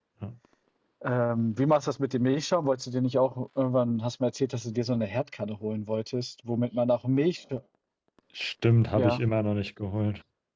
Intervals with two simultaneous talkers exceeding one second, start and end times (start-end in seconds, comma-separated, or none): none